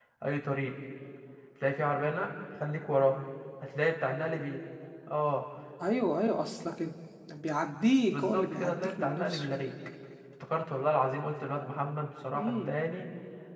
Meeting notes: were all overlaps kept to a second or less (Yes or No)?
No